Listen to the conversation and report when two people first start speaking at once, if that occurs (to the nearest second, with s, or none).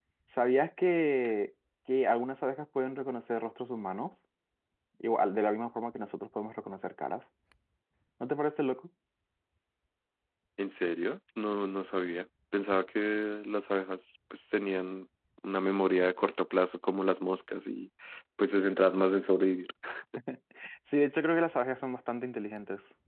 none